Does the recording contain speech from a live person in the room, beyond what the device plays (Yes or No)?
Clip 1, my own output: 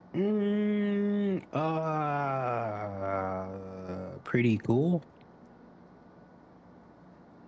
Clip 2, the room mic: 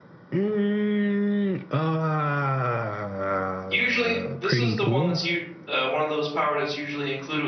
Yes